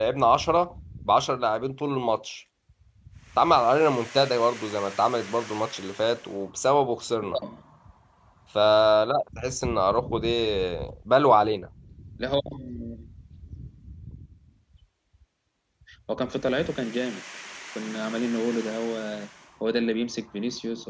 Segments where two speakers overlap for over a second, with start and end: none

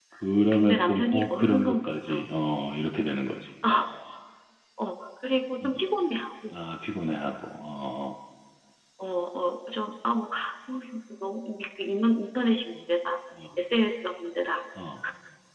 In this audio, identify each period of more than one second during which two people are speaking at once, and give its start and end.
0.5-2.2

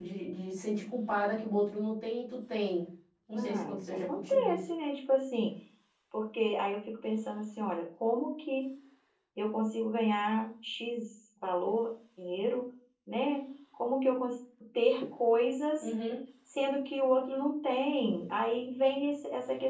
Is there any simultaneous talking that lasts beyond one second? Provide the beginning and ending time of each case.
3.3-4.6

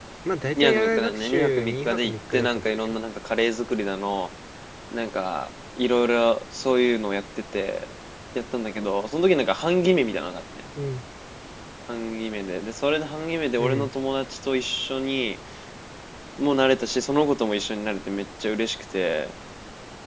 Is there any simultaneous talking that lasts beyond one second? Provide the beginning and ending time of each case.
0.6-3.0

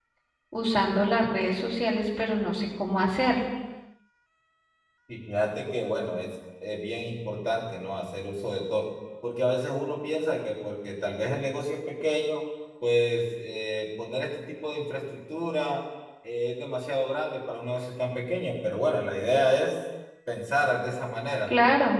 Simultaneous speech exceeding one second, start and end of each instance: none

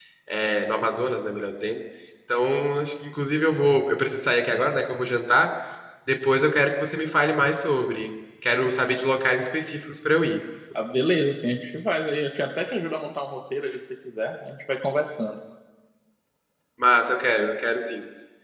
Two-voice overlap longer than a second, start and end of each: none

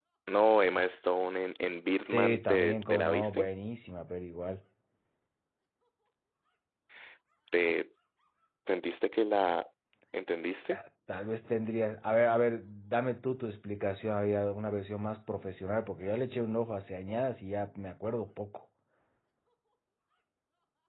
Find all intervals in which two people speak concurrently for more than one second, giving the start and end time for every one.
2.1-3.5

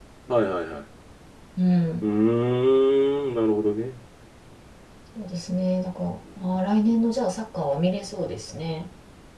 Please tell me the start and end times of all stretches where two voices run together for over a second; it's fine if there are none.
none

